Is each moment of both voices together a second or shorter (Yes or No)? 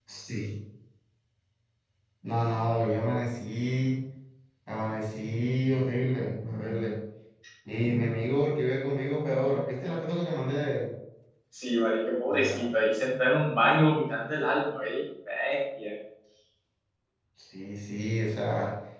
Yes